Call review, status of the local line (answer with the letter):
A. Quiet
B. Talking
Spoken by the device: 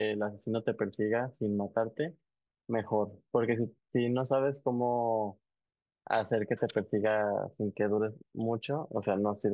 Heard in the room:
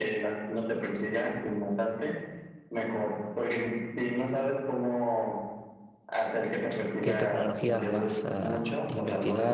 B